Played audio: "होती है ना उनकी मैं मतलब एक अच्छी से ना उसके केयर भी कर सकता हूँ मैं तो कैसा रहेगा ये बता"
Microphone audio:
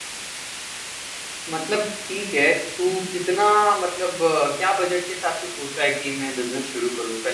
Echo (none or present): none